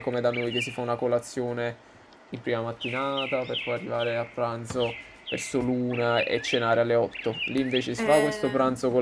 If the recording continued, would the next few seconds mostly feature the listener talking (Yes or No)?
No